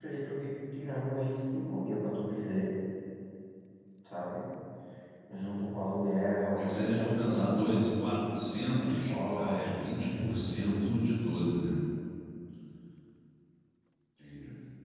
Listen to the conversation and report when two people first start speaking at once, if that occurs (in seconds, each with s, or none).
6.6 s